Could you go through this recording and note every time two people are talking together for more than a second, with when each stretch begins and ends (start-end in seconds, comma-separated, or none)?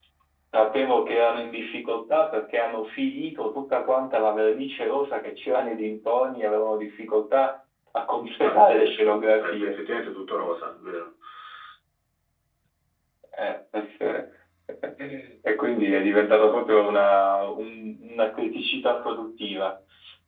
8.4-9.8